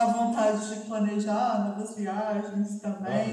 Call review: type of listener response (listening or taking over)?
taking over